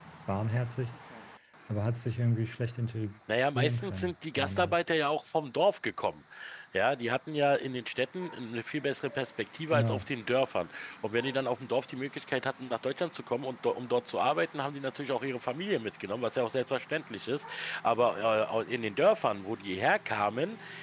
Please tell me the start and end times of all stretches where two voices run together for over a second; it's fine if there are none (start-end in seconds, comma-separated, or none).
3.5-4.8